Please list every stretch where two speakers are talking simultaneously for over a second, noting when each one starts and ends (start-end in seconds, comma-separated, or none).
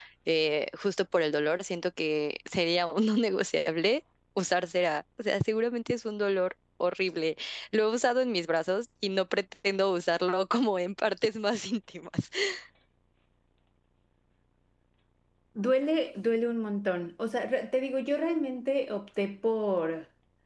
none